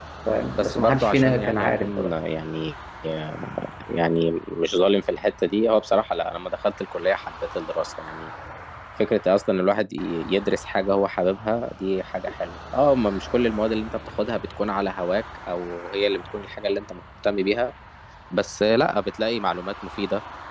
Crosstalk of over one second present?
Yes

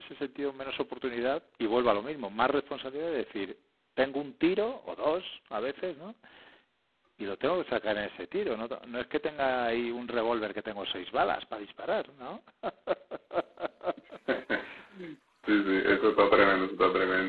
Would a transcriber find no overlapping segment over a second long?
Yes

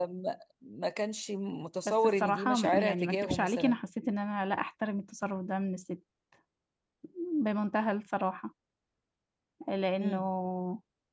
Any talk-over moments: Yes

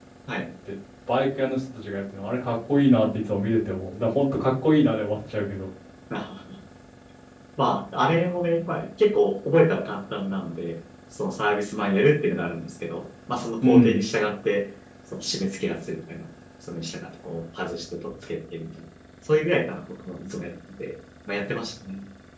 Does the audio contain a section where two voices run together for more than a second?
No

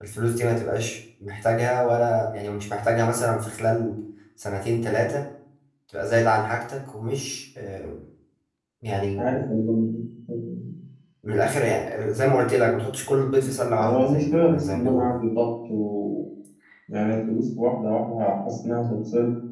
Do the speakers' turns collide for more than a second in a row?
Yes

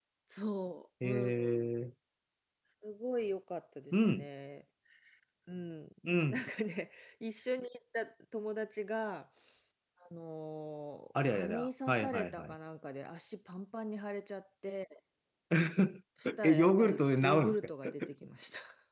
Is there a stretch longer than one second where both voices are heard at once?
Yes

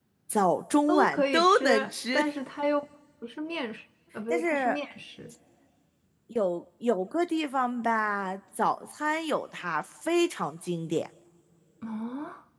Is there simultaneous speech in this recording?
Yes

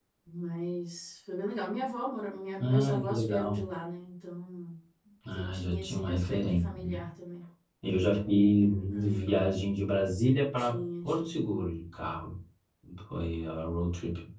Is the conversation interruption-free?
No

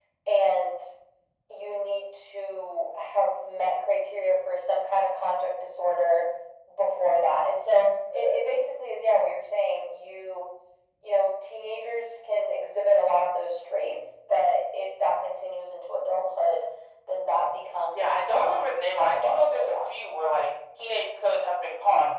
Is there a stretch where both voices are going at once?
Yes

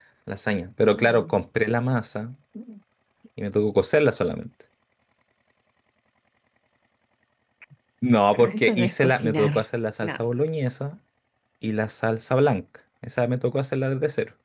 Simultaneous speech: Yes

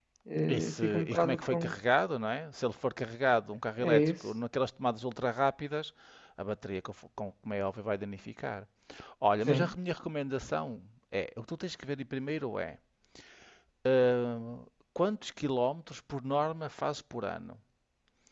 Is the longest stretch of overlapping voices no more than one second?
No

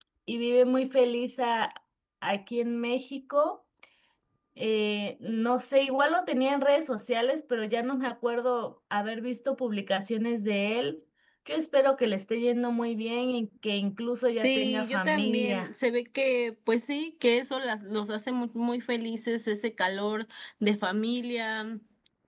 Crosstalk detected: Yes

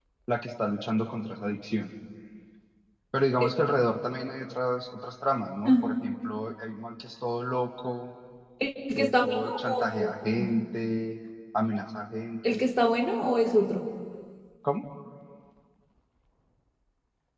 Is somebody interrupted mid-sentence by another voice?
Yes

